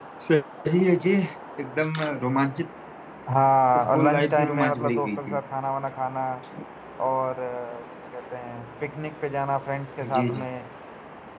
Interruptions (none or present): present